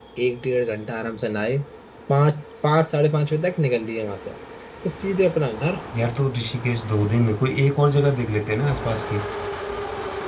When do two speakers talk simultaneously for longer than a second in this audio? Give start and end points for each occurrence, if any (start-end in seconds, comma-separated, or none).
none